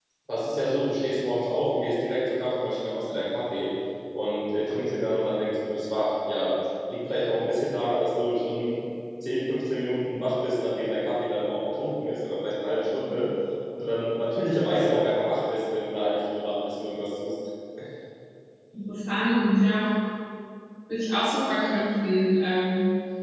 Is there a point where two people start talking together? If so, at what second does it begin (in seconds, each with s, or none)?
none